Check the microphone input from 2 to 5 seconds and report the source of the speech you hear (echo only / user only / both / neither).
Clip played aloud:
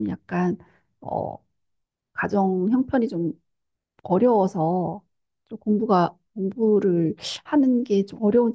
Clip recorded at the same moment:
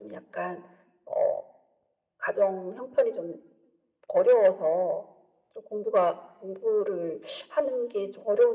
echo only